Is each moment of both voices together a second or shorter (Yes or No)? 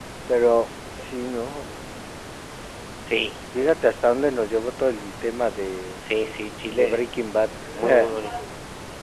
Yes